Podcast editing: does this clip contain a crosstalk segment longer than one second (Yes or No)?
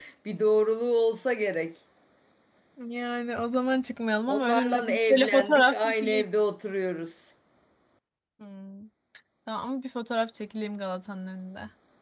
Yes